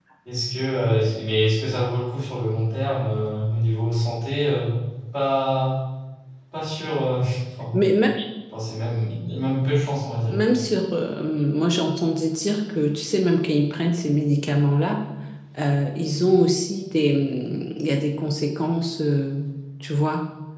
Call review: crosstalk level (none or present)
none